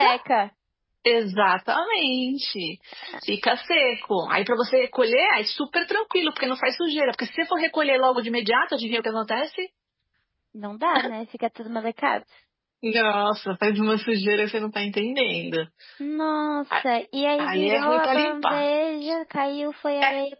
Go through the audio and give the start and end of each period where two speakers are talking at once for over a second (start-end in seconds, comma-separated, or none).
17.4-18.6